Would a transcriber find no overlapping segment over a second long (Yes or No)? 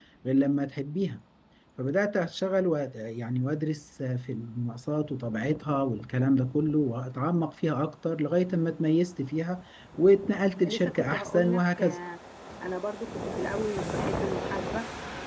No